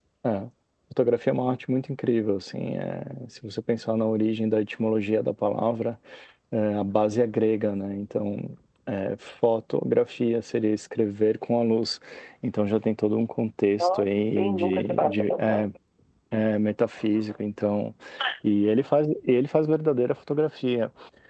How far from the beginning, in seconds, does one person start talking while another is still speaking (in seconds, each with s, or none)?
13.8 s